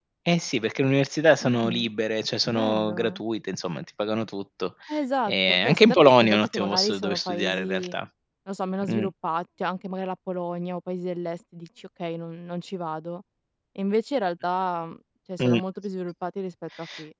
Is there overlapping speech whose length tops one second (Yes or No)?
Yes